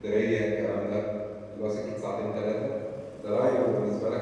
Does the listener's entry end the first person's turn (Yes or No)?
No